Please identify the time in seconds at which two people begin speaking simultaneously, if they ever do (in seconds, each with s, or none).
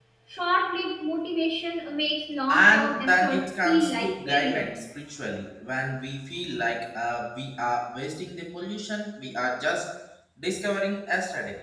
2.5 s